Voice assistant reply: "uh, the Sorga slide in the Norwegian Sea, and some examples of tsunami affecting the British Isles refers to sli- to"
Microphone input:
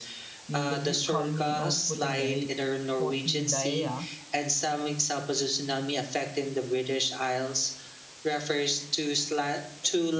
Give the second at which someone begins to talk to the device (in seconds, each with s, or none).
0.5 s